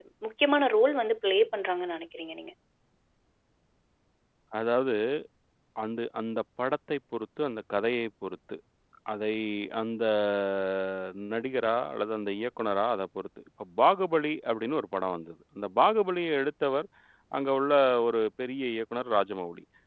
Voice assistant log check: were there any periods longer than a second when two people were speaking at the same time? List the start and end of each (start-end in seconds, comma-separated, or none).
none